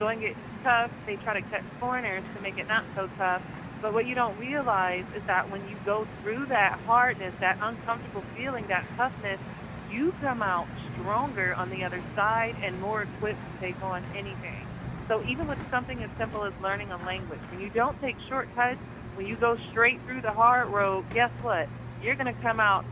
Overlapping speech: No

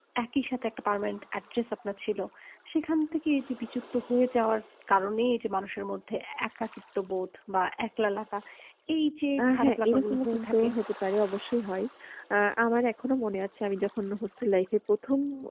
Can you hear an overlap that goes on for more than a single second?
Yes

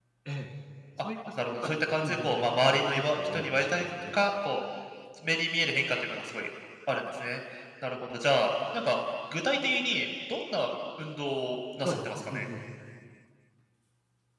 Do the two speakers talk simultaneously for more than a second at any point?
Yes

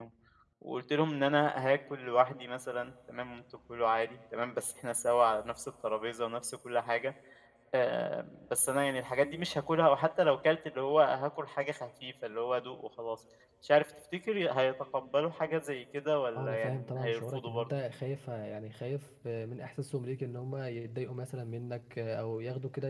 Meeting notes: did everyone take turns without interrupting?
No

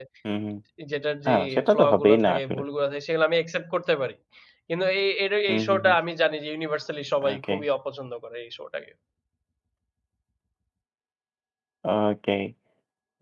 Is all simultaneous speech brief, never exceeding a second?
No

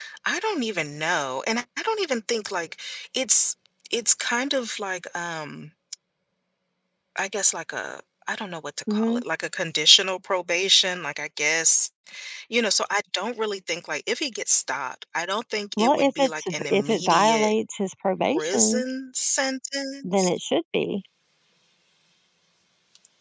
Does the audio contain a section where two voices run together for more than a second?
Yes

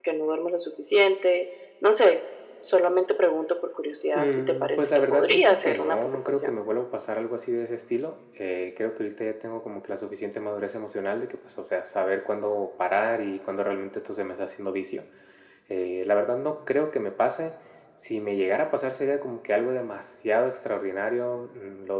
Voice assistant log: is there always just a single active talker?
No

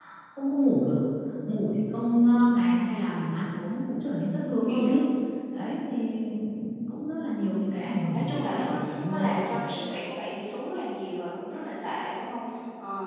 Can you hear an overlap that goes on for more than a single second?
Yes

